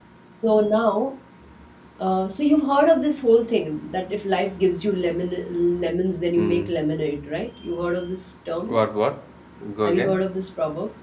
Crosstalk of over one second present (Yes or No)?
No